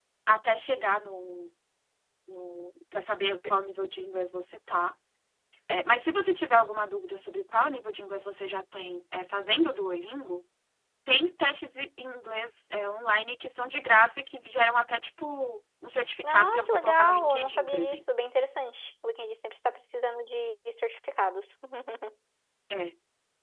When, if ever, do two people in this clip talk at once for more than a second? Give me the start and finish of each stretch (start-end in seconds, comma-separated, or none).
16.2-18.0